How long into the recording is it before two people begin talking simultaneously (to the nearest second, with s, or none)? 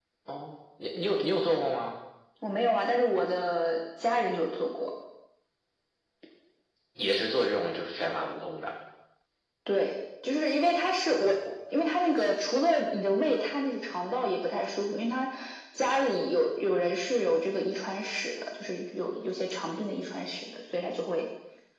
none